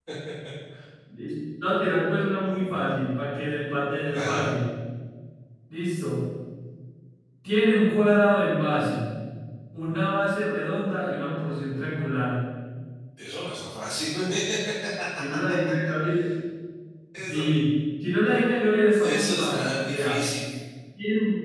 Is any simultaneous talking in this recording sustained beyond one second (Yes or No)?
Yes